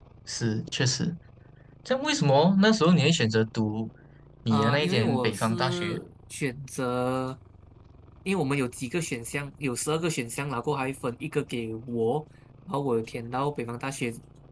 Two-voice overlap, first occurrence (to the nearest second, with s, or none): 5 s